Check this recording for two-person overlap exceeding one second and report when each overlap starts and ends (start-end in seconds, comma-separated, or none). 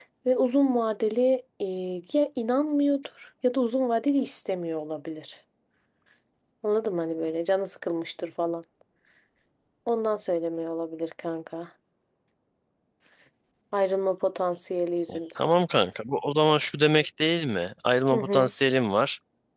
none